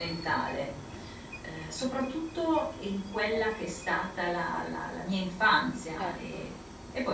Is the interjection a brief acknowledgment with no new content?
Yes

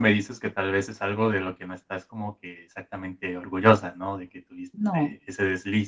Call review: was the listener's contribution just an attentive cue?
Yes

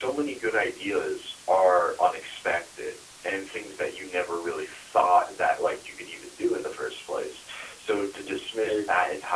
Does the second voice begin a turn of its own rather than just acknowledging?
No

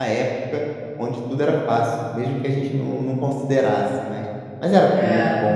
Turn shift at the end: No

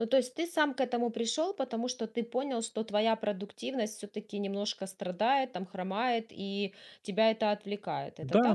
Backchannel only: No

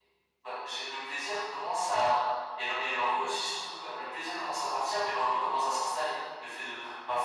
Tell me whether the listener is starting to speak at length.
No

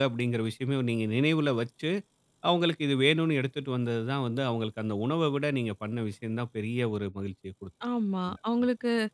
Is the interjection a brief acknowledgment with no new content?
No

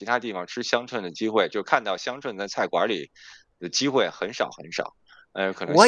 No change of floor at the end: No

